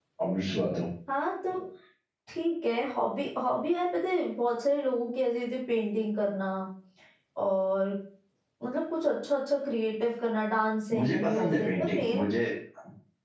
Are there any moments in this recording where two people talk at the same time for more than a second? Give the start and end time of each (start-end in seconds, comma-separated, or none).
10.9-12.2